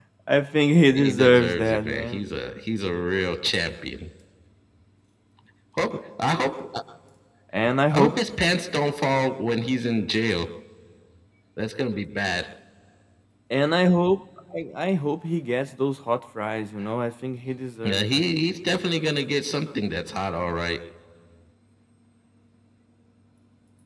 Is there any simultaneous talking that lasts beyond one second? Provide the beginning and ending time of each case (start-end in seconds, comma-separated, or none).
0.9-2.2